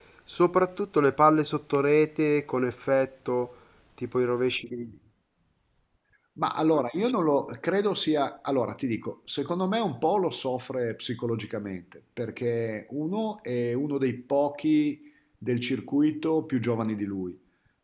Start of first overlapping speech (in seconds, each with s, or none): none